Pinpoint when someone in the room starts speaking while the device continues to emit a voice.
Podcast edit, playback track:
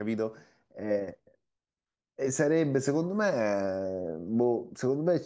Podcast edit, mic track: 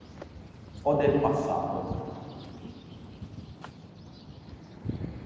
0.8 s

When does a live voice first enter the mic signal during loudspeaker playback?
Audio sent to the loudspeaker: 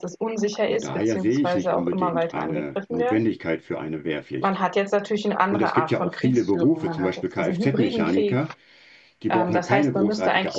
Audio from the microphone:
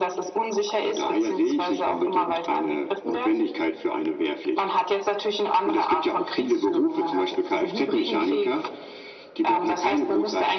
none

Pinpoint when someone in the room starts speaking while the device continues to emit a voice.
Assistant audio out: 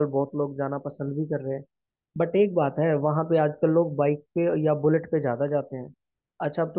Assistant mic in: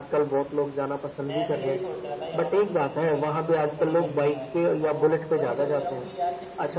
1.2 s

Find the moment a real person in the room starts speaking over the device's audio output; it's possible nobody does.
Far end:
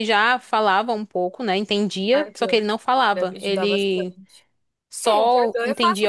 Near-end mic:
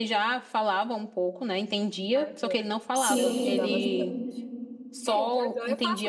2.9 s

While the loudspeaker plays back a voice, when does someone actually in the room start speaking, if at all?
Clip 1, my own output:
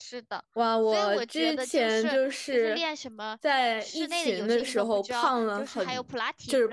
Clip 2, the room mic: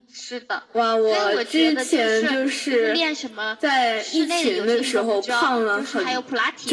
none

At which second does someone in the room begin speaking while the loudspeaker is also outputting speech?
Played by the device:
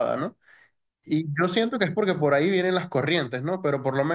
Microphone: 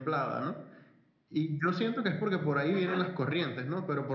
2.7 s

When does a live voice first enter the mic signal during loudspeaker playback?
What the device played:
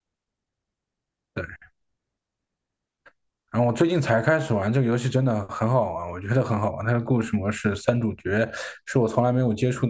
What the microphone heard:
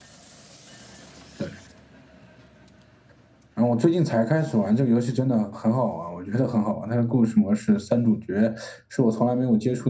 none

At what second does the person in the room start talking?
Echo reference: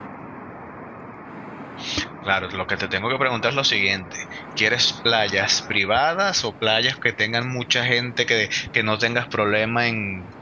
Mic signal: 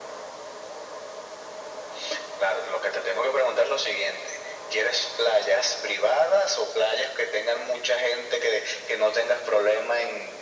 none

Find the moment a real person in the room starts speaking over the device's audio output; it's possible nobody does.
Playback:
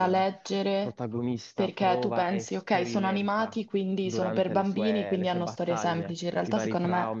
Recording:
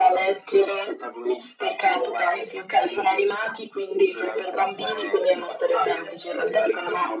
none

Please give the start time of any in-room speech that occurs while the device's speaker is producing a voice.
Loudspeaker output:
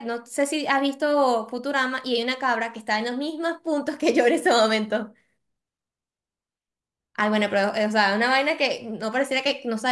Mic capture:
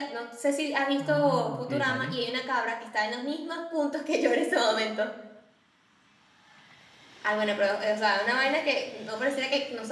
0.9 s

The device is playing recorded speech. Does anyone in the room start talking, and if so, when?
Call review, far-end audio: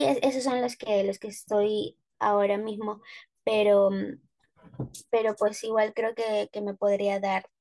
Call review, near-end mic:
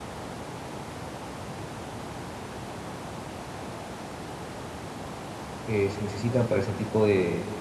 5.6 s

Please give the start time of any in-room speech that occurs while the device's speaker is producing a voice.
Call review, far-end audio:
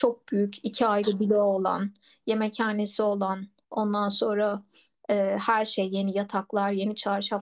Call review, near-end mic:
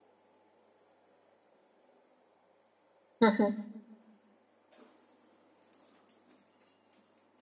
3.2 s

